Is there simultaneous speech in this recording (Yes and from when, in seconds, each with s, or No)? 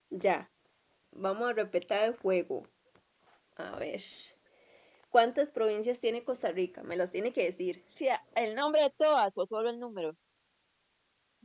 No